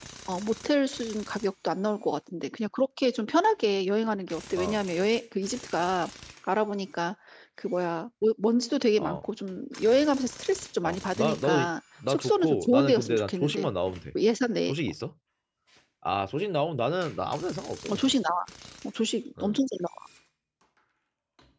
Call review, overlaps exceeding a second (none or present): present